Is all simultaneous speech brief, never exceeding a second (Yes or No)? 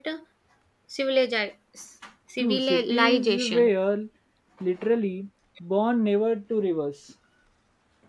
No